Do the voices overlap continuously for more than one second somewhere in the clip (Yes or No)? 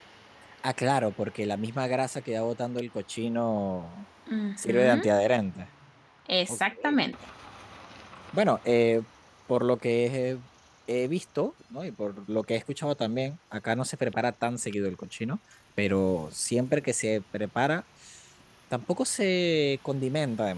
No